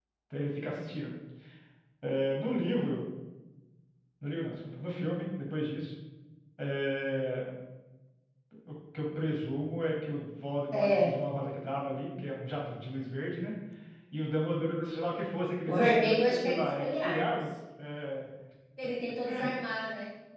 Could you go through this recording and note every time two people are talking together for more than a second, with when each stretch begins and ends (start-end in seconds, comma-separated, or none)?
15.7-17.4